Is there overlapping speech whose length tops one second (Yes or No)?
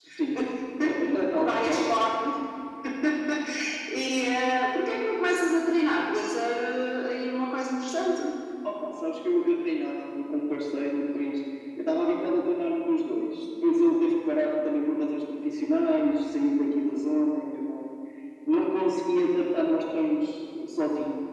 No